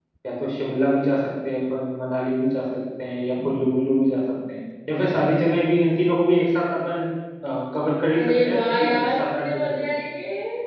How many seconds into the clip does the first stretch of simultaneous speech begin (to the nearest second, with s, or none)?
8 s